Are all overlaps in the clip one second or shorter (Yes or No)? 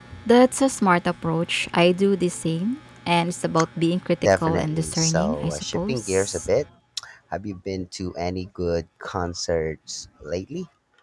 No